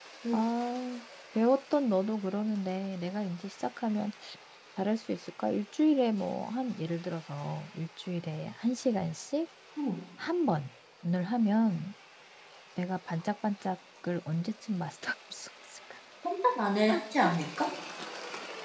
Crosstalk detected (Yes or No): No